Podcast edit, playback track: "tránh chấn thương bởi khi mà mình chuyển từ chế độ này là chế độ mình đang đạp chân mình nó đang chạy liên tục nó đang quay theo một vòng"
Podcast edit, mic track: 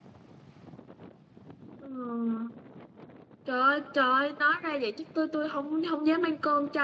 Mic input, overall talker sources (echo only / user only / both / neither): user only